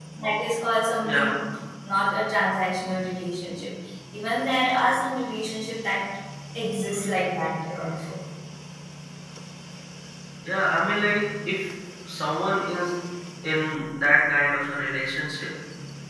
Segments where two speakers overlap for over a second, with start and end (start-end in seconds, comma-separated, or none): none